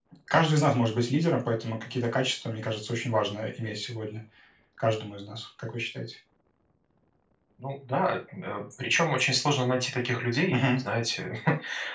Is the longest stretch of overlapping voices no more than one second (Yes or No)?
Yes